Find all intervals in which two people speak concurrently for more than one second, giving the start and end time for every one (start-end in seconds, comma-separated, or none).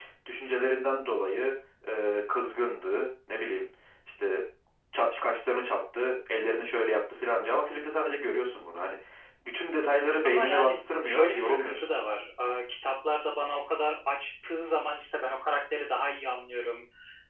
10.2-11.8